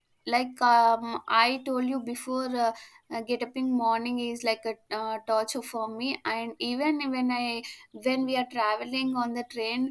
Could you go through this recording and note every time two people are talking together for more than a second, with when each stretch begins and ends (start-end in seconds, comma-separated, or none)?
none